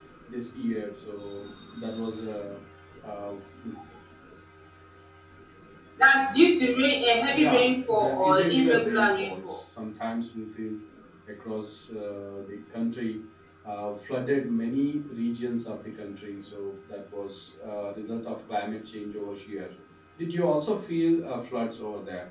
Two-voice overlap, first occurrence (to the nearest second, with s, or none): 7 s